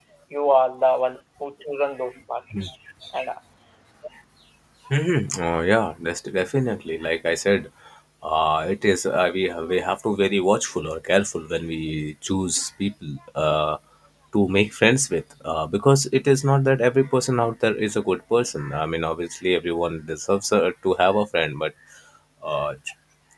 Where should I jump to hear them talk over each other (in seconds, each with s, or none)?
none